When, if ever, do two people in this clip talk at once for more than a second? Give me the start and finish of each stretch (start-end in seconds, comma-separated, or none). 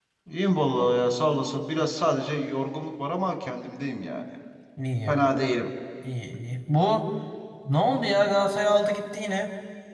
none